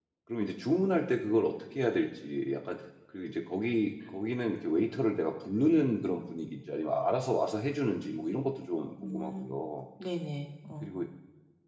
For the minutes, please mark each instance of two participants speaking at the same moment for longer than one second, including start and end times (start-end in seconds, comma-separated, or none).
none